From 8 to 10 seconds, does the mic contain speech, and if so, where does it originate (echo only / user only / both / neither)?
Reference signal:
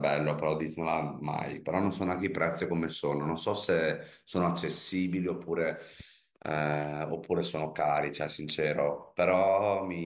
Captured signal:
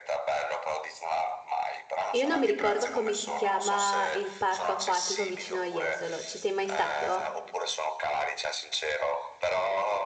echo only